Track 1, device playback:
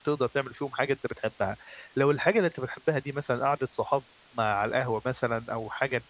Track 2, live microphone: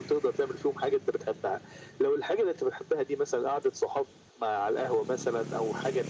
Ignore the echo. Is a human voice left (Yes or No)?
No